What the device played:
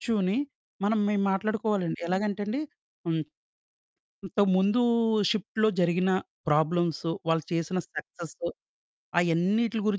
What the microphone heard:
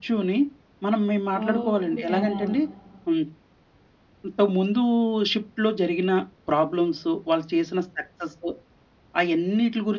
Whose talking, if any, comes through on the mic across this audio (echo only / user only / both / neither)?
both